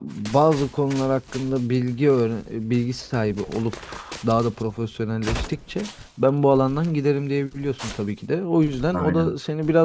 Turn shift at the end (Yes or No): No